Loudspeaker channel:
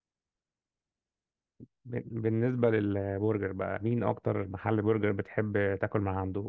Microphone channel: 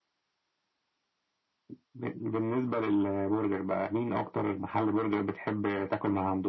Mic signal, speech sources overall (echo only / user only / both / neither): echo only